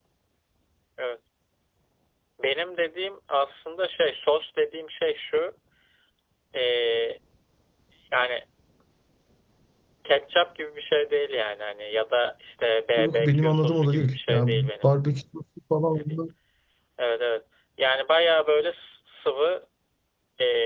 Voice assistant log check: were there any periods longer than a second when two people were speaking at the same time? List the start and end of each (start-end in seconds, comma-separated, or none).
13.0-14.9